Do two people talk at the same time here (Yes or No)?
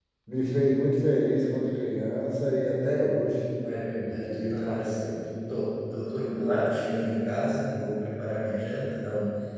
Yes